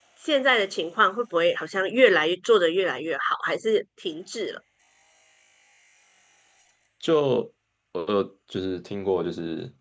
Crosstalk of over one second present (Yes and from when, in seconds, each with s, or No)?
No